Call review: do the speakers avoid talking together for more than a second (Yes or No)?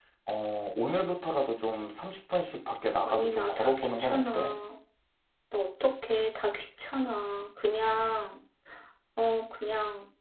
No